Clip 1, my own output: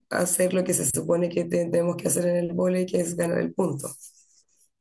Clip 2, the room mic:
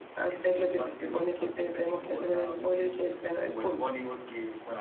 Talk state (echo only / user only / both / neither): both